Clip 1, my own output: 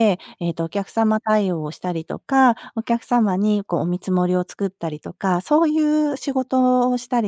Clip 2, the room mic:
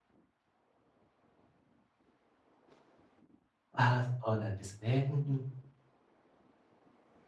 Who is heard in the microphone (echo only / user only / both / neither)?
user only